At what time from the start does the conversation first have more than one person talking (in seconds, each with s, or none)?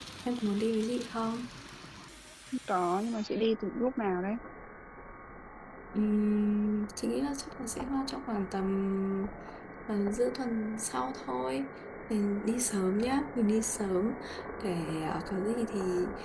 none